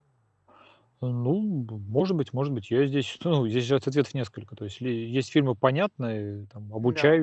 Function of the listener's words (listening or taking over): listening